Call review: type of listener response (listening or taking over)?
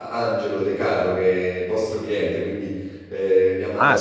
taking over